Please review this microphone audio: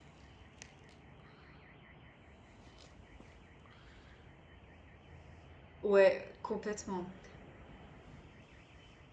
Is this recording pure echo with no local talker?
No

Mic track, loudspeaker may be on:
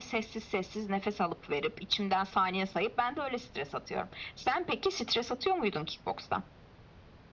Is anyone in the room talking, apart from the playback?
No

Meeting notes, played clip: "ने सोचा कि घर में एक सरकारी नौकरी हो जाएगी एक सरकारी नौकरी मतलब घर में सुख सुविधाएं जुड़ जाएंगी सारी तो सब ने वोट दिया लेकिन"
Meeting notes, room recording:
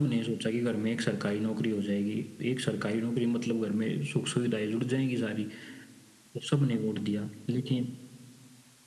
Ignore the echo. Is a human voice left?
No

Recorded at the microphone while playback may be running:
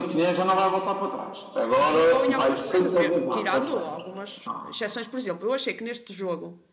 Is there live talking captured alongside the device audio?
Yes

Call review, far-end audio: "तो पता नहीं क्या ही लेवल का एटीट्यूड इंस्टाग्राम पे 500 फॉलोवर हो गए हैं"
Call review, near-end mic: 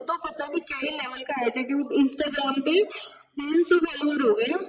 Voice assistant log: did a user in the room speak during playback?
No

